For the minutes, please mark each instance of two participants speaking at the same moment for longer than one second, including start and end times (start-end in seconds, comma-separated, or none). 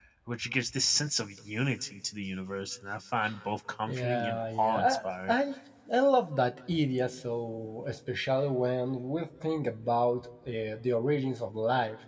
3.9-5.3